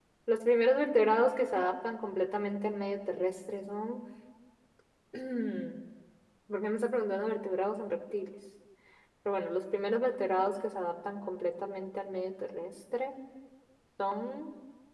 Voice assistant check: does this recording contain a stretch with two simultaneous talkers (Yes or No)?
No